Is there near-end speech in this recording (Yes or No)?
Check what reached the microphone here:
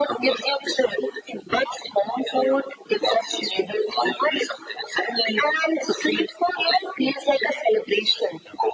No